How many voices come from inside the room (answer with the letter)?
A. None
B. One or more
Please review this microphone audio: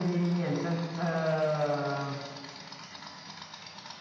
A